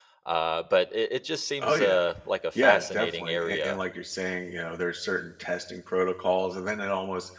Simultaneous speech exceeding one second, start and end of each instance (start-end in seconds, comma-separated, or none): 2.5-3.8